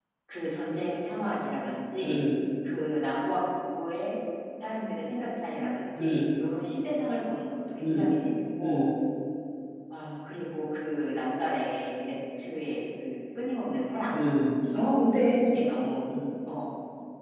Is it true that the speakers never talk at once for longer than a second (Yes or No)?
Yes